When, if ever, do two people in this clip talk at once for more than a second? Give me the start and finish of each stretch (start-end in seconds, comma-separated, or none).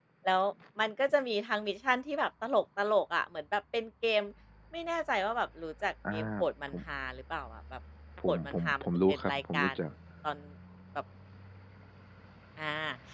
8.3-9.7